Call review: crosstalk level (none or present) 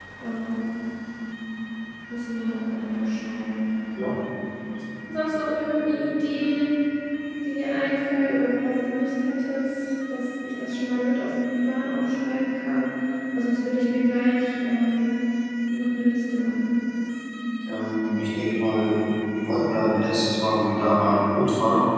none